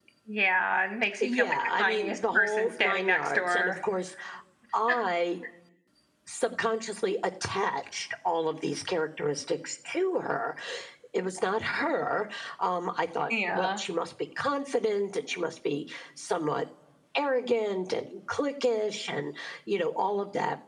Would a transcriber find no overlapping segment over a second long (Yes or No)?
No